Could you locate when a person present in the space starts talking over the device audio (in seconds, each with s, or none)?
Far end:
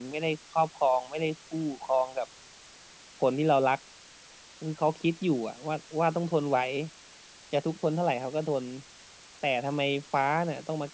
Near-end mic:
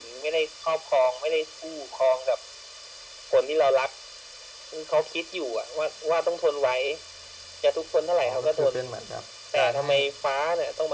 8.2 s